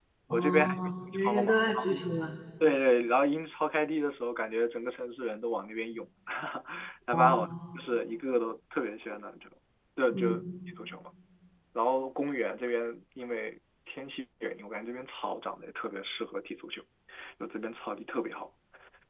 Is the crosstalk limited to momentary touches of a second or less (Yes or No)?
No